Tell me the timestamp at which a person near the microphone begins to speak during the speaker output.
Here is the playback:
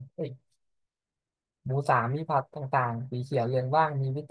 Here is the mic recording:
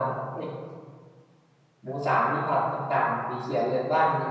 none

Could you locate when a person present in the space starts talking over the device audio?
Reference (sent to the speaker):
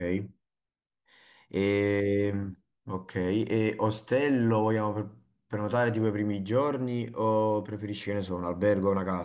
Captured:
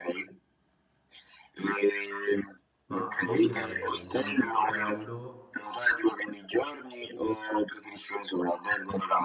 2.9 s

